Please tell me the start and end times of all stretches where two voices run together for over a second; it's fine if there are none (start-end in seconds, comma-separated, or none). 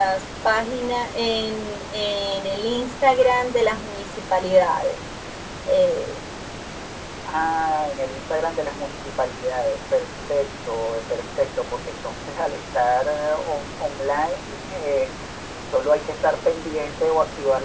none